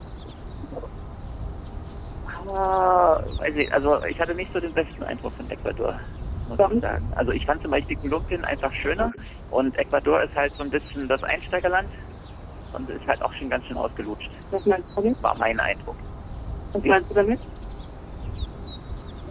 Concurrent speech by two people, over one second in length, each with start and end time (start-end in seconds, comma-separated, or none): none